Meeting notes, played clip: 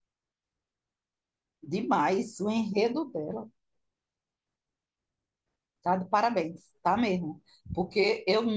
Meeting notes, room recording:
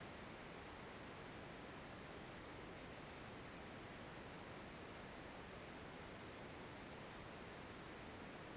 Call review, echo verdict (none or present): none